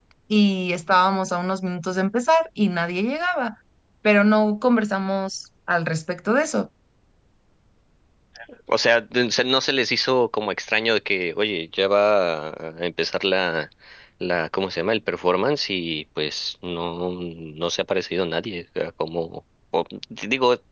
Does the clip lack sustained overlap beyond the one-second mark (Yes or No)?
Yes